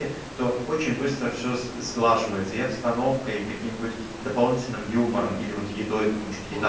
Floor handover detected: Yes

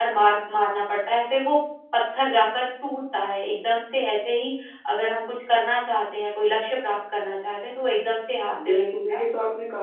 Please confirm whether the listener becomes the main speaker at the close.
Yes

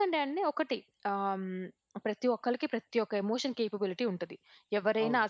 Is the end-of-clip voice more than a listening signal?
No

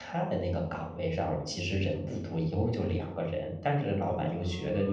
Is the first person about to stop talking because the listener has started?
No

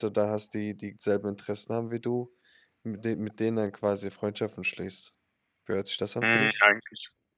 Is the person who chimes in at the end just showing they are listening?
No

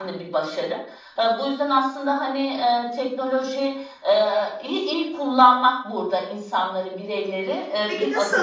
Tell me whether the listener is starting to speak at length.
Yes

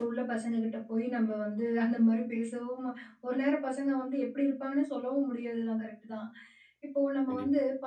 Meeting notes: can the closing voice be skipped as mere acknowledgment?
Yes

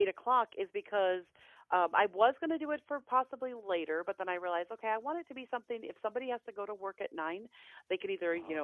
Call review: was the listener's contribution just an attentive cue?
Yes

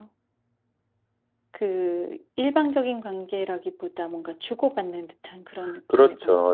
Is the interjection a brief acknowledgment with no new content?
No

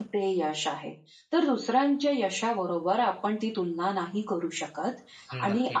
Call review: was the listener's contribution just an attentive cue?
Yes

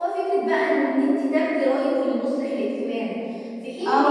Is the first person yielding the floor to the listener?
Yes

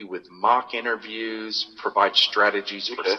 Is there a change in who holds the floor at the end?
No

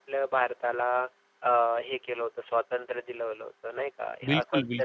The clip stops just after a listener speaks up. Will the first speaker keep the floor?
No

